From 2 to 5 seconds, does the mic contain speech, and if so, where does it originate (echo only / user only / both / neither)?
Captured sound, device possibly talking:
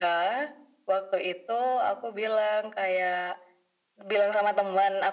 echo only